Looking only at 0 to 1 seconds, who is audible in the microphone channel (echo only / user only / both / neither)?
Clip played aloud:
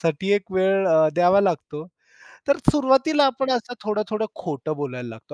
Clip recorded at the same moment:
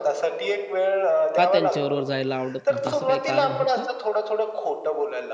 echo only